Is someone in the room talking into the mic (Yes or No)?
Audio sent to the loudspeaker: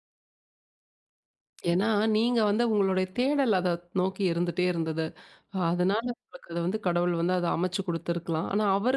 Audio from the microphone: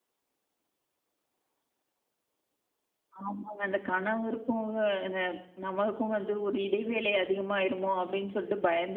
Yes